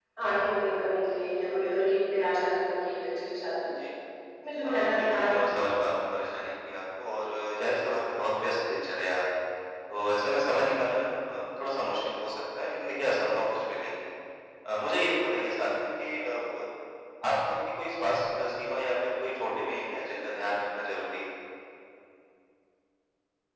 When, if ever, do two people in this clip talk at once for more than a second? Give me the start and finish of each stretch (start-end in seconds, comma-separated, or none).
4.6-6.0